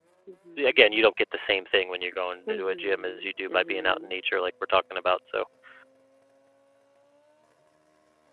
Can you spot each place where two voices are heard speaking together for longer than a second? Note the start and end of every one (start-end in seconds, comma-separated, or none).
2.5-4.1